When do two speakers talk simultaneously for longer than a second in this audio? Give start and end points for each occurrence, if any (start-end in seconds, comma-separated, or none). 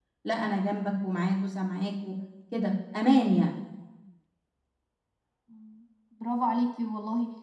none